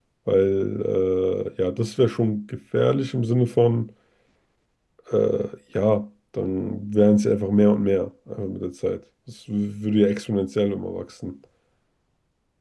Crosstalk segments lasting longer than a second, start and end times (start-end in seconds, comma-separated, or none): none